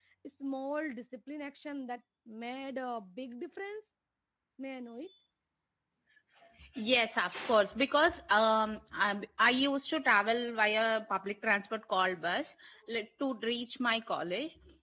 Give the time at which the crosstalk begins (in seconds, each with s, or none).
none